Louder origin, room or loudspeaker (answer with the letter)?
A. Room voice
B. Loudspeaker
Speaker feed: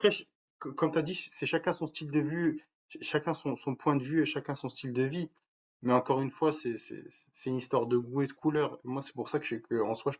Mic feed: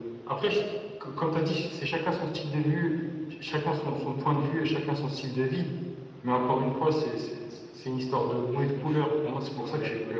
B